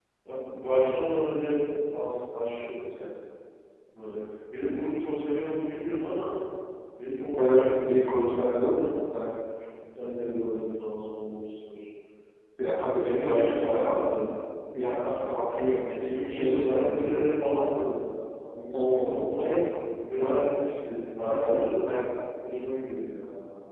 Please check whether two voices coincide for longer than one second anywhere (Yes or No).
Yes